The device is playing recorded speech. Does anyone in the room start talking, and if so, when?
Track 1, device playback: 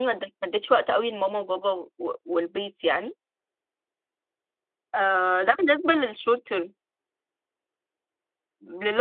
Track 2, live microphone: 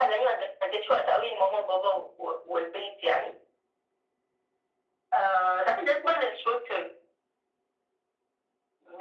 none

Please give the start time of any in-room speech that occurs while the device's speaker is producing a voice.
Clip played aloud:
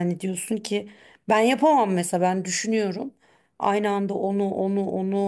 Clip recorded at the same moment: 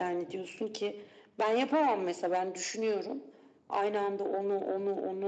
none

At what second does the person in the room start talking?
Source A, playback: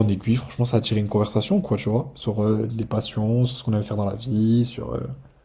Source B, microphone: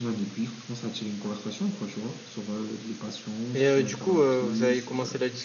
4 s

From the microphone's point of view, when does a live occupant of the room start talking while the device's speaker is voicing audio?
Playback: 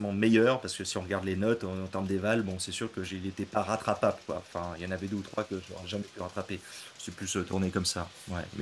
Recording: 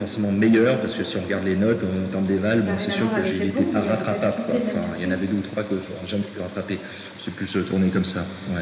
3 s

